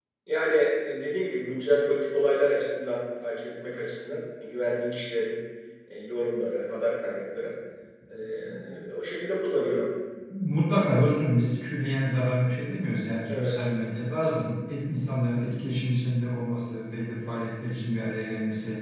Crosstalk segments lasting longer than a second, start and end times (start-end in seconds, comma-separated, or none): none